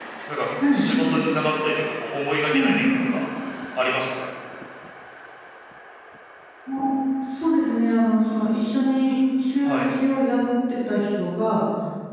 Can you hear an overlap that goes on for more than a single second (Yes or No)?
No